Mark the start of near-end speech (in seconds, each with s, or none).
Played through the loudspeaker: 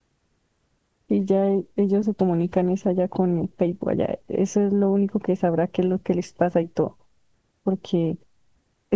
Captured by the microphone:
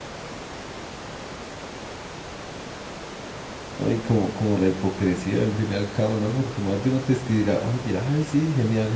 3.8 s